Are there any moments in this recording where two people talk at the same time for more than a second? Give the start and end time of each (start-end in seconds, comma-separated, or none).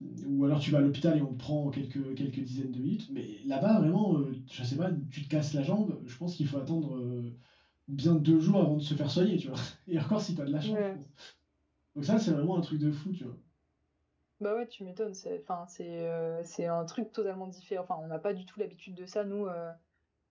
none